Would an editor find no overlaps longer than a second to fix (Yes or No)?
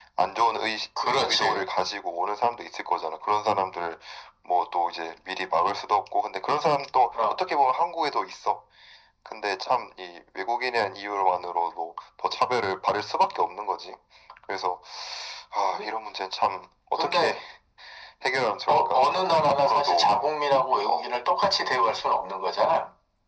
No